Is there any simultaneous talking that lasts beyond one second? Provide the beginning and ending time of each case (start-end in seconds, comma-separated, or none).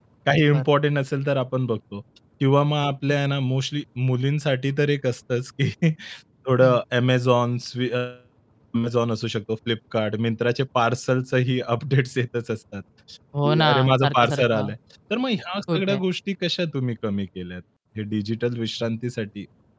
13.4-14.7